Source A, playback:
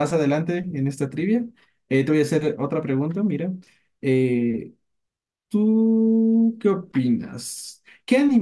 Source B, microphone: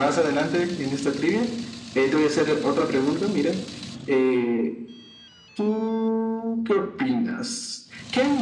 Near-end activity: none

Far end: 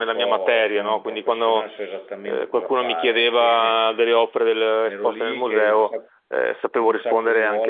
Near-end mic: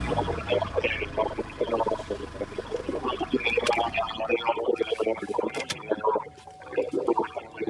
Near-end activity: none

